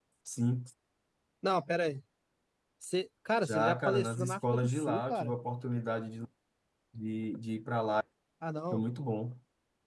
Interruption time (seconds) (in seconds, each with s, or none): 3.5 s